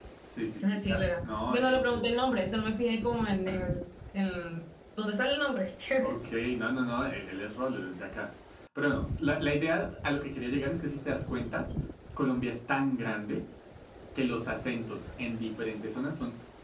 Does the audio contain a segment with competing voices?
Yes, from 0.6 s

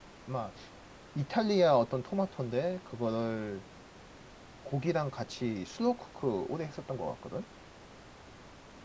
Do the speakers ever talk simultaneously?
No

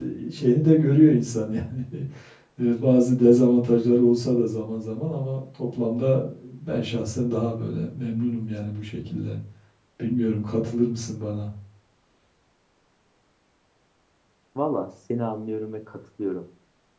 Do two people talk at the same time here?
No

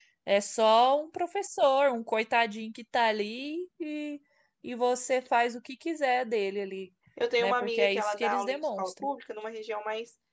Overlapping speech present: Yes, from 7.4 s

